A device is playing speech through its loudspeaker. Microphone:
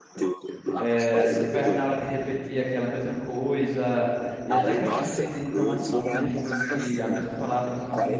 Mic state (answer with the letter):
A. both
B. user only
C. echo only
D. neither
A